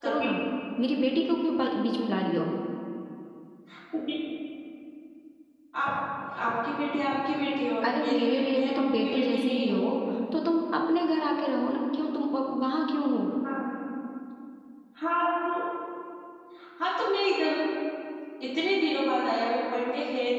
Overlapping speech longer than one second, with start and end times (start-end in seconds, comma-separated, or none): 7.9-9.9